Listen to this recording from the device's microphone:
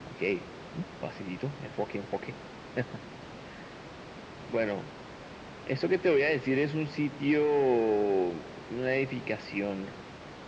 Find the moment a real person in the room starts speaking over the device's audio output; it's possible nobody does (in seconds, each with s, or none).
none